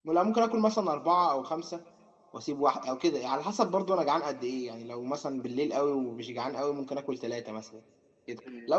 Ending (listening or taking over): listening